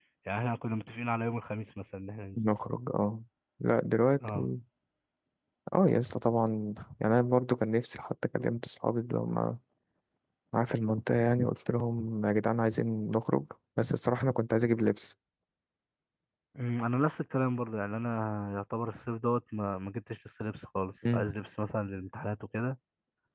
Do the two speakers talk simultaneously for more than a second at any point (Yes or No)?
No